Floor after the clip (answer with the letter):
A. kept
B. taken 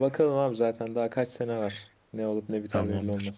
B